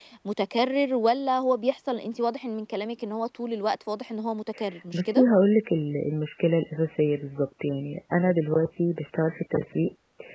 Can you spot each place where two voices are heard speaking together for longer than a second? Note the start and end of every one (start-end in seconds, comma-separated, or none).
none